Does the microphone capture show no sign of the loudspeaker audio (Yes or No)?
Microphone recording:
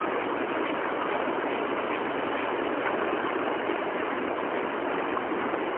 Yes